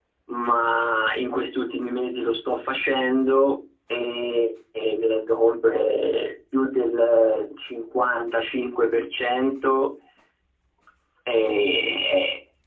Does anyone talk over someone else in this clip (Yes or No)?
No